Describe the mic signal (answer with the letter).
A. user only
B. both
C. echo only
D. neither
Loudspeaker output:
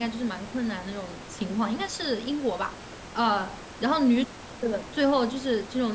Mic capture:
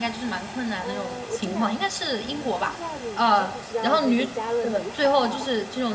B